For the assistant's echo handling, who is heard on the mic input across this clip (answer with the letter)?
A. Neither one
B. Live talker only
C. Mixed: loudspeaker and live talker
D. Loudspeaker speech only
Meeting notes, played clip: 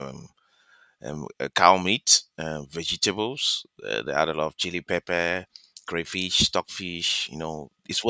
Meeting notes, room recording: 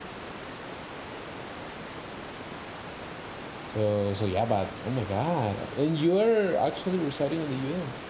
B